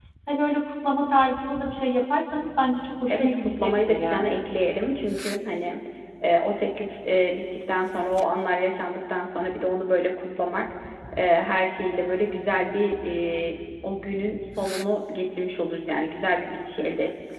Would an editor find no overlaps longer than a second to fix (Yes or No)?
No